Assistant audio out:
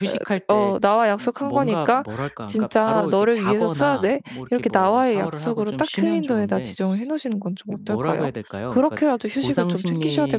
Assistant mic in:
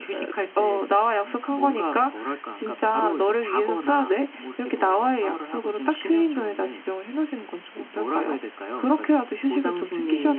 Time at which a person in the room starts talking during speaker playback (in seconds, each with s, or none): none